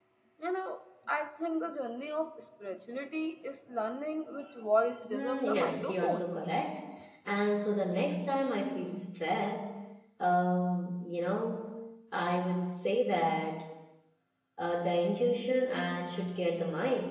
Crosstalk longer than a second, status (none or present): present